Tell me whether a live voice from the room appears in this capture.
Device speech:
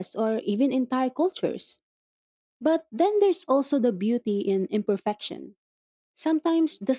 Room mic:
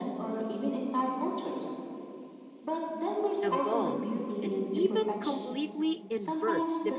Yes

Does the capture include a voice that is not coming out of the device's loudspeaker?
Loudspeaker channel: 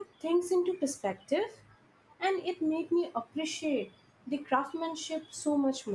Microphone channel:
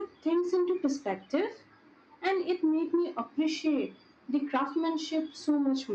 No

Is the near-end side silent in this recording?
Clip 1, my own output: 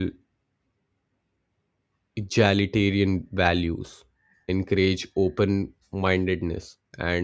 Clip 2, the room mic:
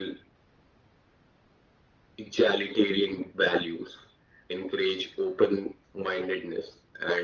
Yes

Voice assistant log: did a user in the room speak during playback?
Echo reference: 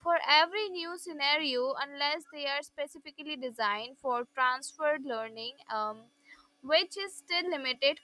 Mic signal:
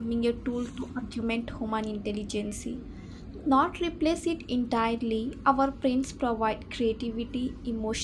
Yes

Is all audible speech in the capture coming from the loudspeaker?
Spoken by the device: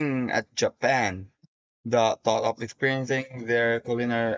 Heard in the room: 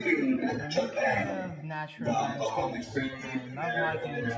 No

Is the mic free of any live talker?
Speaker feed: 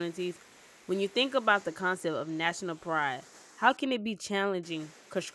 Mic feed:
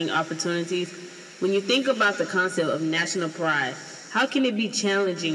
Yes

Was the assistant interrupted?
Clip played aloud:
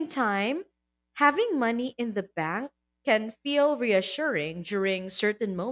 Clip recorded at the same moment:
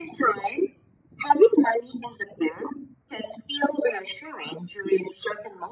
No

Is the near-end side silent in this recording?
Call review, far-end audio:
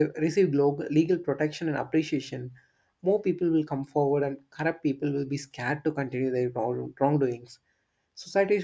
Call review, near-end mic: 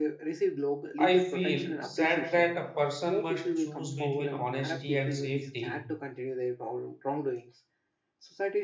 No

